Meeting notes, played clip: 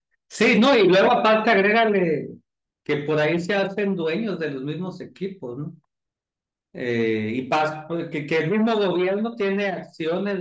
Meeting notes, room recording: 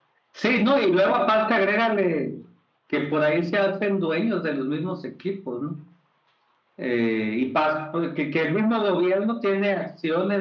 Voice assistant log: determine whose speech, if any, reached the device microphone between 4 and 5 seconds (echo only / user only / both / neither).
echo only